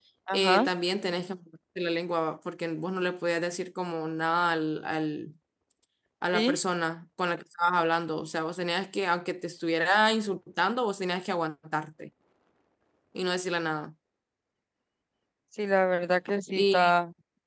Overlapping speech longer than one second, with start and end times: none

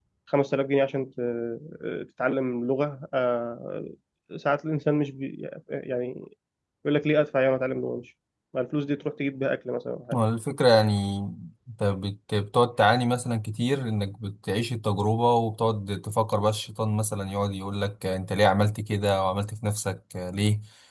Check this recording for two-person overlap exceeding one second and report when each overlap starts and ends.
none

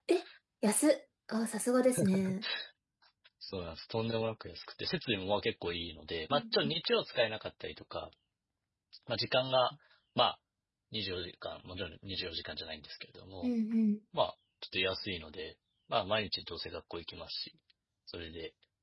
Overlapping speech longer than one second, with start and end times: none

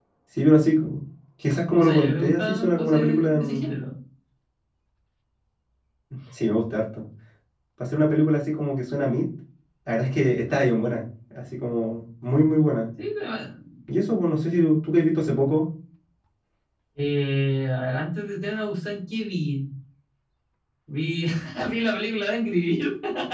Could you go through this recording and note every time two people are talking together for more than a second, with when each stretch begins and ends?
1.8-3.8

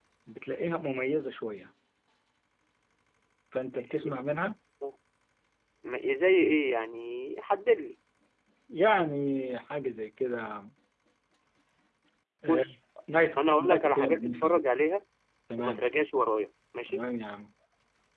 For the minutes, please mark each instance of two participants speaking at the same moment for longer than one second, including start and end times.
13.4-14.6

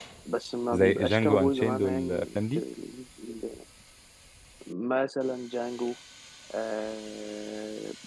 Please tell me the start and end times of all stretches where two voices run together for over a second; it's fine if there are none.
0.8-2.6

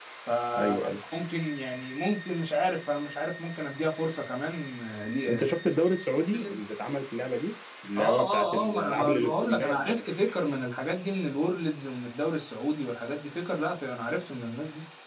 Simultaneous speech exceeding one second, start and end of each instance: 8.0-10.0

